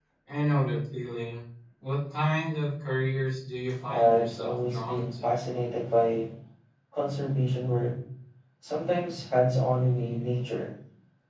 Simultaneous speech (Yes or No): Yes